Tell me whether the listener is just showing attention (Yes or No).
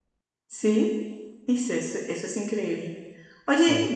Yes